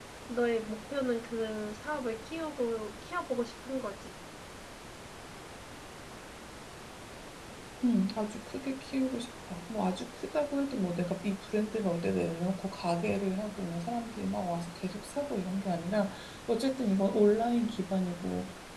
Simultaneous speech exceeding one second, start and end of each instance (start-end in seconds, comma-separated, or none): none